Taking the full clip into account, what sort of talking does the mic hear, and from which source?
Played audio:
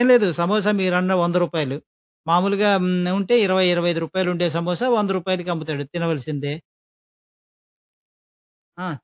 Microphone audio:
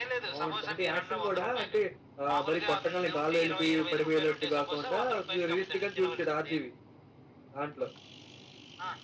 both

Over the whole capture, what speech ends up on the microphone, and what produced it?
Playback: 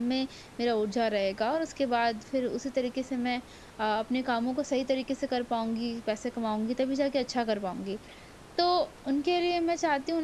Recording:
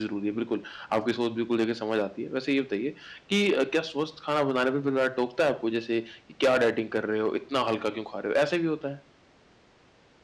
user only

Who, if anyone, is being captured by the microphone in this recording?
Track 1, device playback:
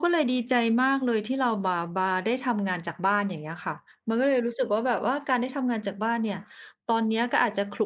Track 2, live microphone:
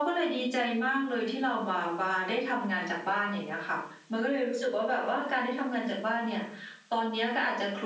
echo only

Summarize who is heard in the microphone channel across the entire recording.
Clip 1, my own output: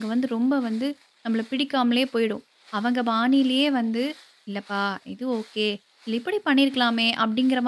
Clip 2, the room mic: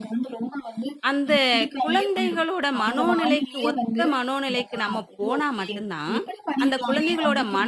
both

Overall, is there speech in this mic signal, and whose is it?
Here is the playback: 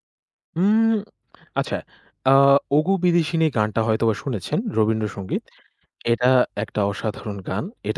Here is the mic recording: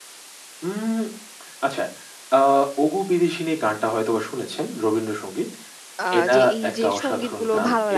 both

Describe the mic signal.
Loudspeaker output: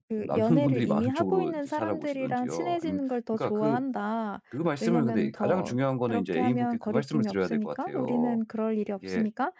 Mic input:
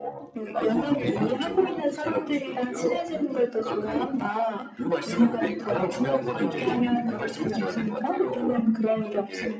both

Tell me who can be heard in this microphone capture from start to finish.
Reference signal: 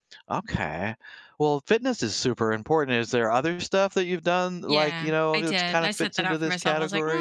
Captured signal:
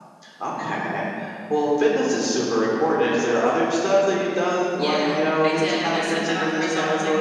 echo only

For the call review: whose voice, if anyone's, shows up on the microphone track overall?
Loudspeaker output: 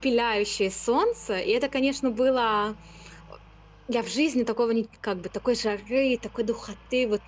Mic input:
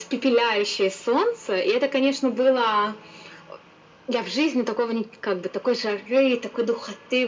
echo only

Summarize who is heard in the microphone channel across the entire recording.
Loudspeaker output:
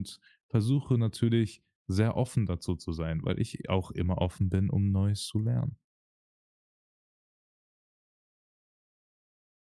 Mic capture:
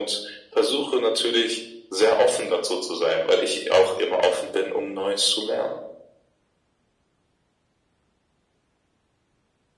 echo only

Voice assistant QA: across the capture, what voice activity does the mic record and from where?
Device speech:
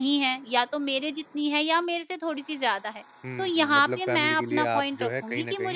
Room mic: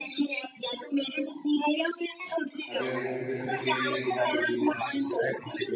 both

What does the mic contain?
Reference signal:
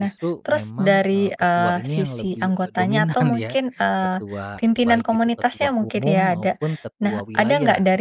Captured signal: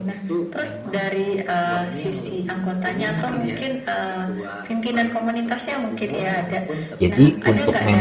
both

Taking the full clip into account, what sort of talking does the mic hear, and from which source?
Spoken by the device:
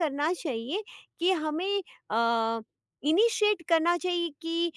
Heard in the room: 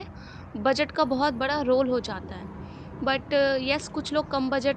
user only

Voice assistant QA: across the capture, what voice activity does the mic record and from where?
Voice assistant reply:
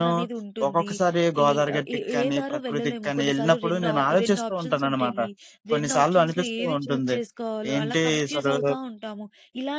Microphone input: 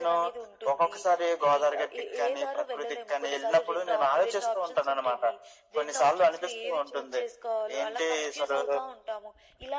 echo only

